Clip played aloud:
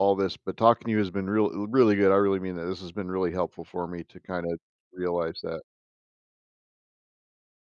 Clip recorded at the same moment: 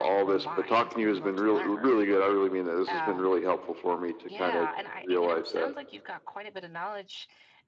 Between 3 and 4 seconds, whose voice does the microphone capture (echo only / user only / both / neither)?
both